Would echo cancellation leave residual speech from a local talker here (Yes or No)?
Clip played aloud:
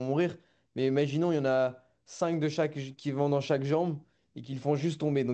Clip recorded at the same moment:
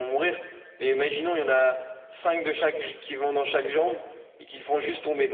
No